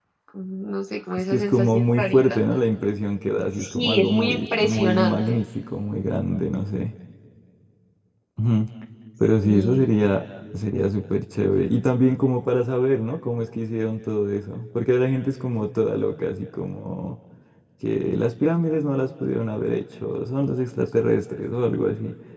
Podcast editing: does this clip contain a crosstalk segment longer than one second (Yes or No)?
Yes